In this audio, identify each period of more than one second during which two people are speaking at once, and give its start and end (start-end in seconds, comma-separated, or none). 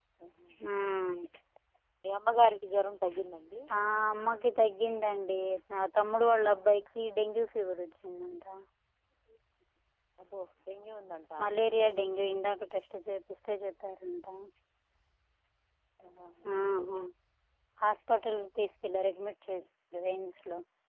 none